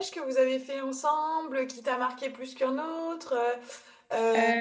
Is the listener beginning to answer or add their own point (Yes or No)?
No